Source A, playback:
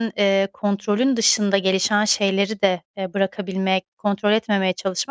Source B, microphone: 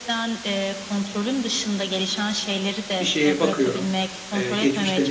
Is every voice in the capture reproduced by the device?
No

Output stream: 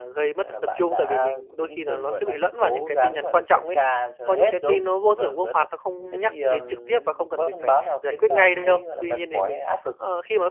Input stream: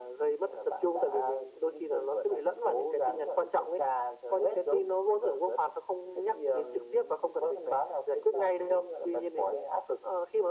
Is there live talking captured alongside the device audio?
No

